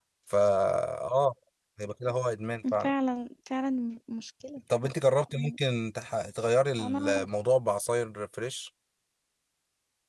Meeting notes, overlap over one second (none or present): none